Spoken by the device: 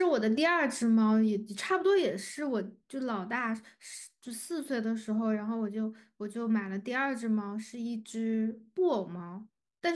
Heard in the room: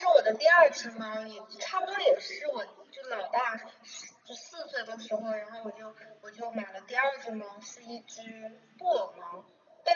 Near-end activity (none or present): none